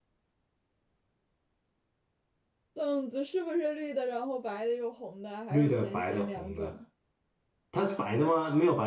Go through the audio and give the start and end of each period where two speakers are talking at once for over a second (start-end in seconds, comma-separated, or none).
5.5-6.7